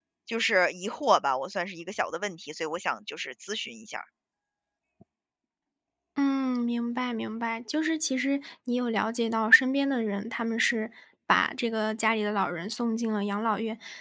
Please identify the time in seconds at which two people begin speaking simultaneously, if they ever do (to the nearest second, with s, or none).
none